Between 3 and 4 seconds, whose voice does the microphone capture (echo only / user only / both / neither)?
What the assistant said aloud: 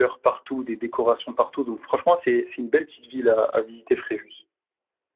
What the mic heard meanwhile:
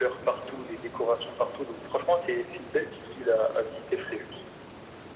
echo only